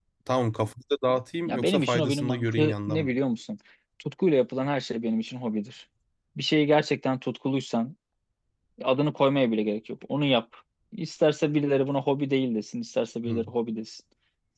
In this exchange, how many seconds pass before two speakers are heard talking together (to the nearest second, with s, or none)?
1 s